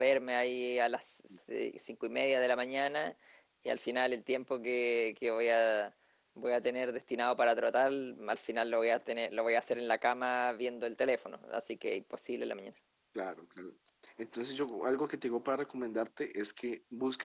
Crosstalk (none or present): none